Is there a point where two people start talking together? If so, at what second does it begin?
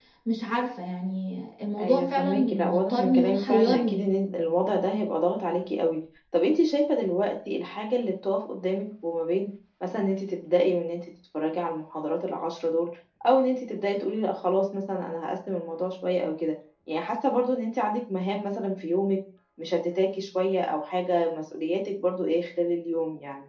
1.8 s

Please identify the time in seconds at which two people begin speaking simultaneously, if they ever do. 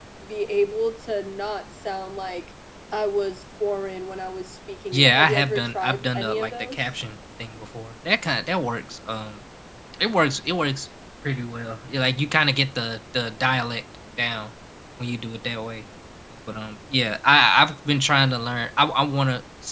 4.9 s

